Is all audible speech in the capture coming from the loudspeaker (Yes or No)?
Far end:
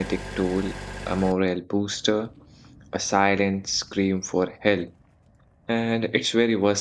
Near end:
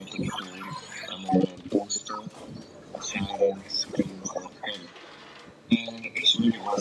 Yes